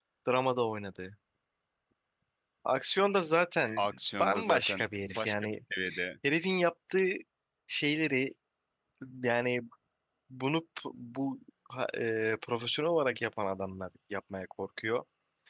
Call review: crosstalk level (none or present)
present